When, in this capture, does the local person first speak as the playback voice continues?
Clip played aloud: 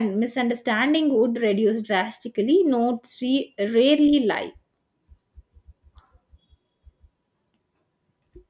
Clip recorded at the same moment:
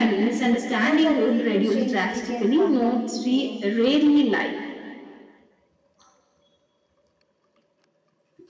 0.8 s

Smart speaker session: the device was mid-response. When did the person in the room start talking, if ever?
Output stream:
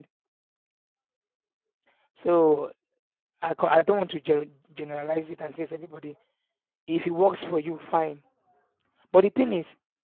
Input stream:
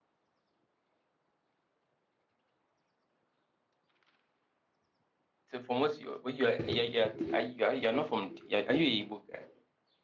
5.5 s

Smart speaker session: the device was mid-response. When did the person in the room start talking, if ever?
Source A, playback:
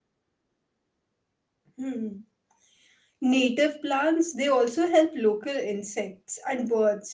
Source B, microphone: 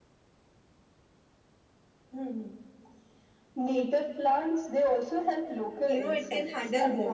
5.8 s

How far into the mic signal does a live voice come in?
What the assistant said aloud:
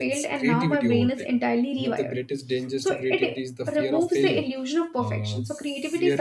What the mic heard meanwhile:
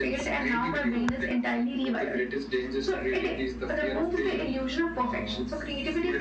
none

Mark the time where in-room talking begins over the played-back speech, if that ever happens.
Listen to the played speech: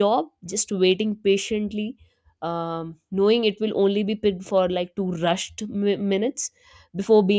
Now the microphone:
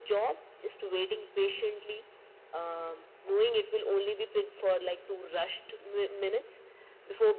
none

